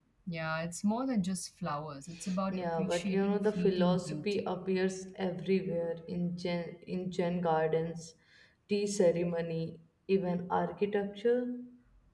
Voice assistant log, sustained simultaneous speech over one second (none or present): present